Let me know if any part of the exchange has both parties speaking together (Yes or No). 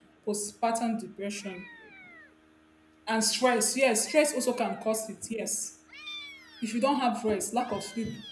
No